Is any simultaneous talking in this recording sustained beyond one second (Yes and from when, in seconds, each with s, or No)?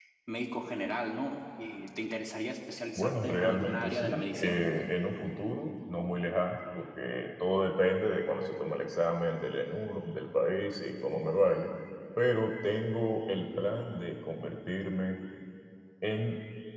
Yes, from 3.0 s